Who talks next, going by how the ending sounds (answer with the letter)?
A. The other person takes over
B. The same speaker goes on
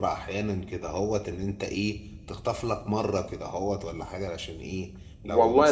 A